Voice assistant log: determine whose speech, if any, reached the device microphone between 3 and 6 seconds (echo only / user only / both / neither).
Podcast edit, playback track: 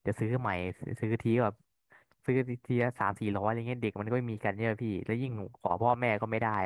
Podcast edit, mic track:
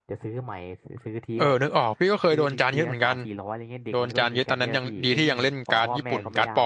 both